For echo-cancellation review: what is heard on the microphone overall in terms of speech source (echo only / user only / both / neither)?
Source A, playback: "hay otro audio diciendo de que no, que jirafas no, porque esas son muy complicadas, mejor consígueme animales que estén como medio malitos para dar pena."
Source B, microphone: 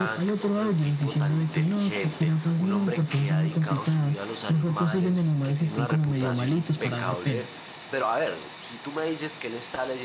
both